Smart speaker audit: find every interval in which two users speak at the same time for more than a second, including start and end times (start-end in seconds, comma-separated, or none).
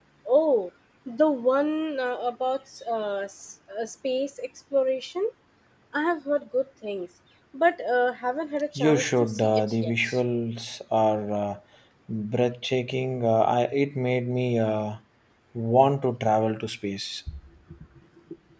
8.8-10.2